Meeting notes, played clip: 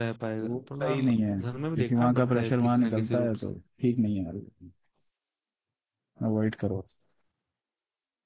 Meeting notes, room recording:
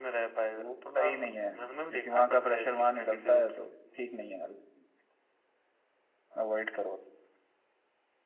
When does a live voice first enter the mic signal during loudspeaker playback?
none

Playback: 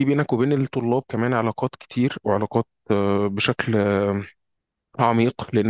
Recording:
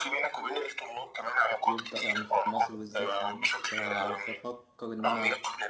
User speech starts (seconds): 1.6 s

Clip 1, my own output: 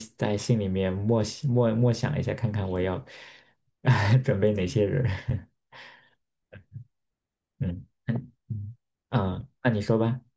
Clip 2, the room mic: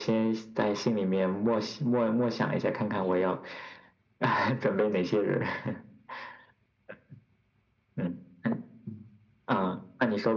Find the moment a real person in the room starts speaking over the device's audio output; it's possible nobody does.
none

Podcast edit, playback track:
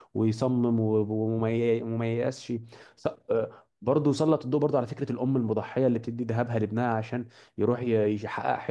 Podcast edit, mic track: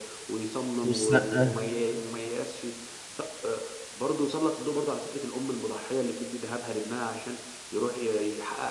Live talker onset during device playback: 0.8 s

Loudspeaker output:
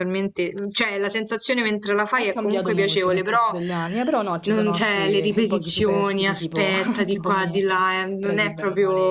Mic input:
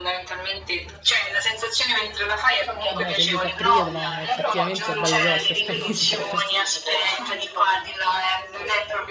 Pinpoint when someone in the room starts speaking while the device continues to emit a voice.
2.9 s

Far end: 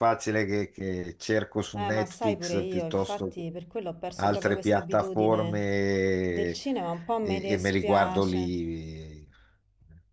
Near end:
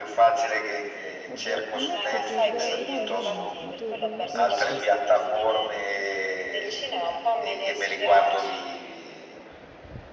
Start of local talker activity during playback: 1.3 s

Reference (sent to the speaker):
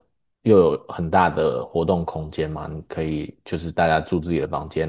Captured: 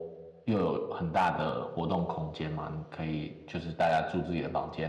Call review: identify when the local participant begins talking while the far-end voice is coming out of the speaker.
none

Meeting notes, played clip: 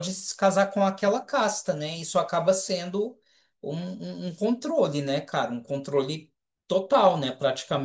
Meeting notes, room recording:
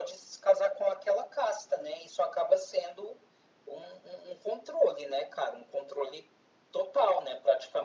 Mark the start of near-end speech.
none

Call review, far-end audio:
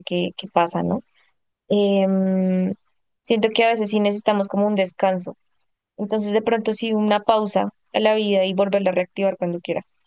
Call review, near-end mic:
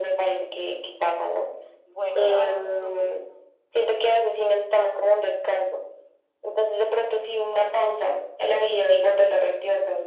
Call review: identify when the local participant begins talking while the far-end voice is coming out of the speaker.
1.8 s

